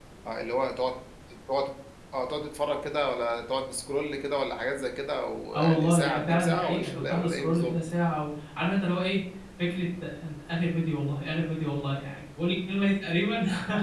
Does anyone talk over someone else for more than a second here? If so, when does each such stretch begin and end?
5.5-7.7

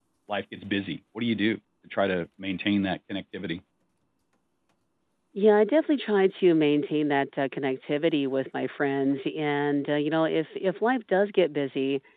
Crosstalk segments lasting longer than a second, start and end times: none

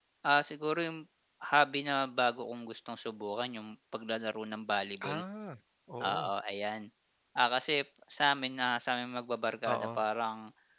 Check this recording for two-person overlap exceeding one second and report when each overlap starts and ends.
none

